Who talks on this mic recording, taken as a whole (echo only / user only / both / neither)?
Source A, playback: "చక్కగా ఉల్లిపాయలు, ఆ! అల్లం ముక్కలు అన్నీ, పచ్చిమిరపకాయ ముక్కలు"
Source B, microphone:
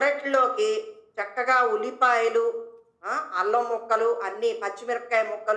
echo only